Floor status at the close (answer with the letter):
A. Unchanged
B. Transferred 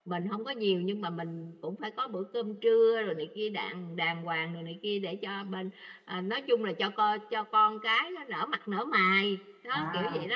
B